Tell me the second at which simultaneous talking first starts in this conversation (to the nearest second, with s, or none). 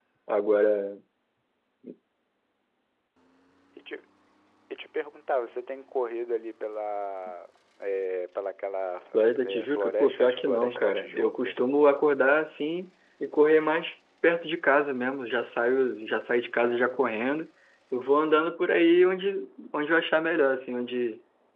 9 s